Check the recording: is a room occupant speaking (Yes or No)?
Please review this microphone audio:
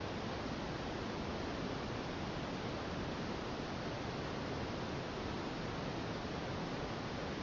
No